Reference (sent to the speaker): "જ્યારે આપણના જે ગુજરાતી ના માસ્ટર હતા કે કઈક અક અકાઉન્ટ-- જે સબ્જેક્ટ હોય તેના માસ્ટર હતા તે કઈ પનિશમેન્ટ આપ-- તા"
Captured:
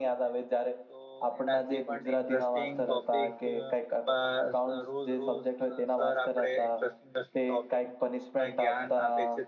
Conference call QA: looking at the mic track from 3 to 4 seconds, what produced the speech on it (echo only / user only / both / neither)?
both